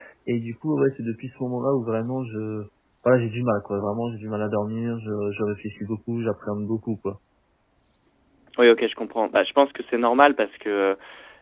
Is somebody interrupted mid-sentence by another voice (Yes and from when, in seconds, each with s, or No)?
No